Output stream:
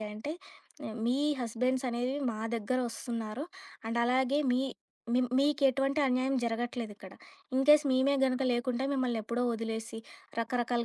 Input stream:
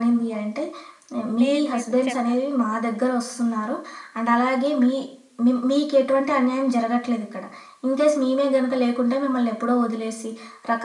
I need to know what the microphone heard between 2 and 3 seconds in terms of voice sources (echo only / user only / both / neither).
both